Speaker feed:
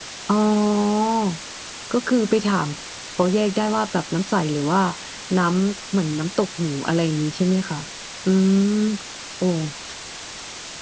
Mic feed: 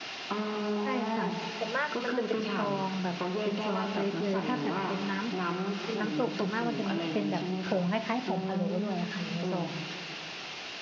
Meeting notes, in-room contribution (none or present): present